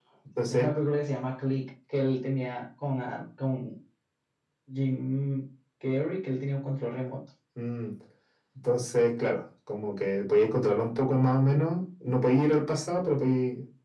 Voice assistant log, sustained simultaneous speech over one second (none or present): none